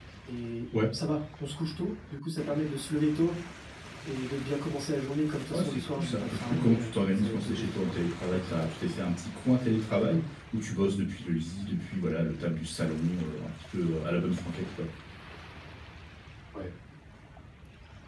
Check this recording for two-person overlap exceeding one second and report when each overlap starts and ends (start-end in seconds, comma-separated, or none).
5.5-8.7